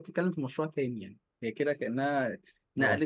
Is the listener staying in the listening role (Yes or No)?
Yes